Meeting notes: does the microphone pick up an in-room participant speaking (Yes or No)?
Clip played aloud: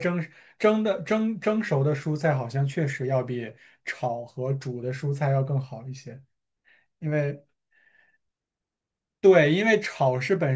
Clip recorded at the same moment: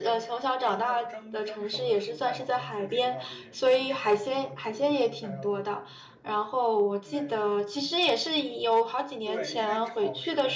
Yes